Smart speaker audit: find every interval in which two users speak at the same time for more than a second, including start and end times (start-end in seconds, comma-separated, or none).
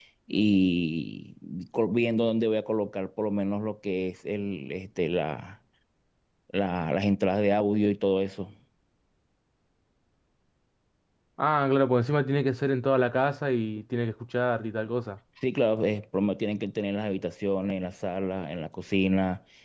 none